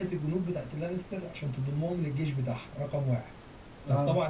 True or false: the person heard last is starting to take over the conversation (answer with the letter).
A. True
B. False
B